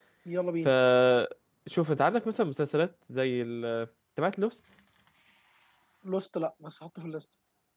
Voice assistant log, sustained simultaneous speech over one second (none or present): none